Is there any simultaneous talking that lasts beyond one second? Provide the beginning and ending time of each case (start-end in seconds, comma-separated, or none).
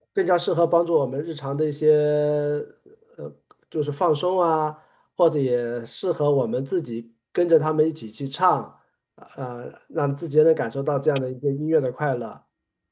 none